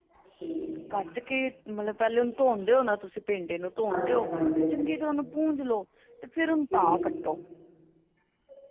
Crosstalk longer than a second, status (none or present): none